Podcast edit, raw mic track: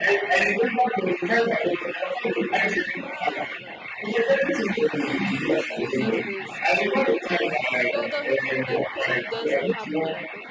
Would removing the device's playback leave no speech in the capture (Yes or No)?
No